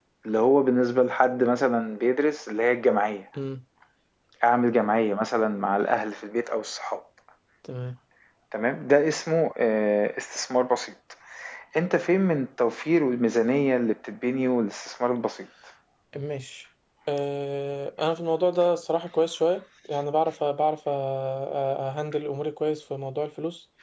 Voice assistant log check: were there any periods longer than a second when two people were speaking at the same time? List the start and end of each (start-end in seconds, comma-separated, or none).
none